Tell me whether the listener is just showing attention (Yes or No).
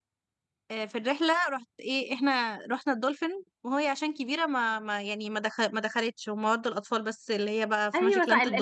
No